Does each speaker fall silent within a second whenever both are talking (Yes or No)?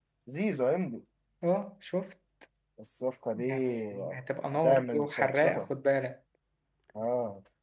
No